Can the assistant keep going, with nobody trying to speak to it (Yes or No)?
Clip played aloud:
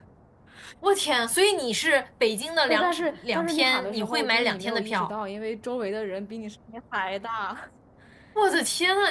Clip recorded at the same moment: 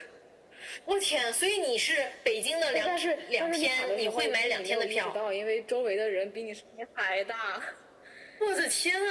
Yes